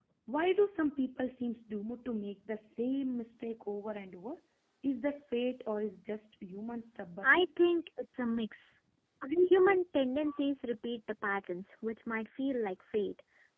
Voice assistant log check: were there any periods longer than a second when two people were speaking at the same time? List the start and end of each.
none

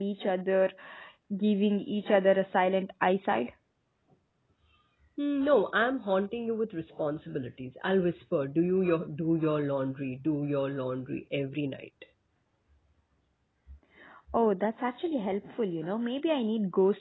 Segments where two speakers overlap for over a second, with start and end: none

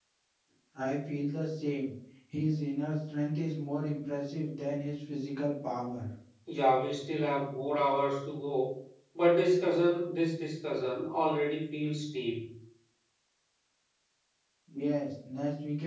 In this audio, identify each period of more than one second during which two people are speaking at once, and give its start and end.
none

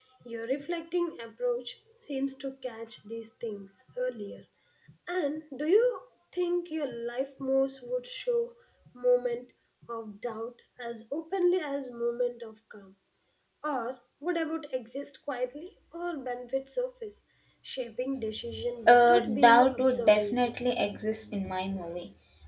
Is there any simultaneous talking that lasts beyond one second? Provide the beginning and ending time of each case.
18.9-20.2

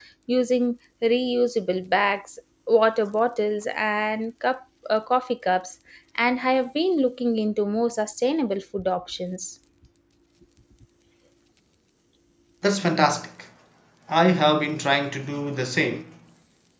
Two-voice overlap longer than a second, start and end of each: none

